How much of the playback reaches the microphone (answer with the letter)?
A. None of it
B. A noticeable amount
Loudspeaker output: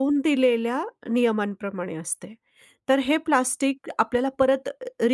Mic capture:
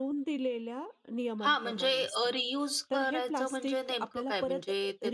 B